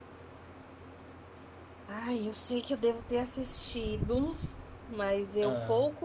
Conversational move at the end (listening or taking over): listening